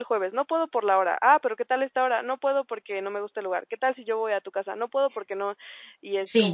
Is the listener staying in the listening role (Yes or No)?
No